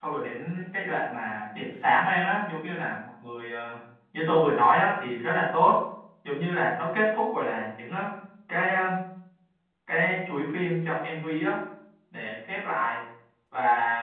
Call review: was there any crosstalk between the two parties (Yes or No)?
No